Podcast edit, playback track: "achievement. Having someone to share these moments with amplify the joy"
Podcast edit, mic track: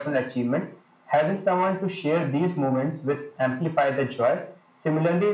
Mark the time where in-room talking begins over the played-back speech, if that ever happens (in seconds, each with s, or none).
none